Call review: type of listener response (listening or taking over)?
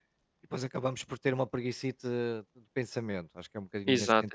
listening